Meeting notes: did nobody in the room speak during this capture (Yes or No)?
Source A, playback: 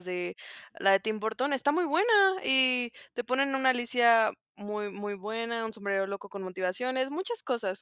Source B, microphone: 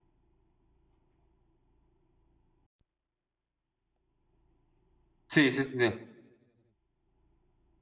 No